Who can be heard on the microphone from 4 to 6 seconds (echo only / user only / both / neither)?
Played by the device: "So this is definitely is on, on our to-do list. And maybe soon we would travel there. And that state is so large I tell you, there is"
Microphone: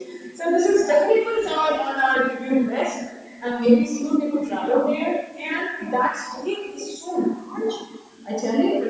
echo only